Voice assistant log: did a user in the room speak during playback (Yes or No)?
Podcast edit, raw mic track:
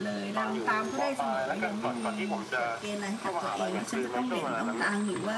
Yes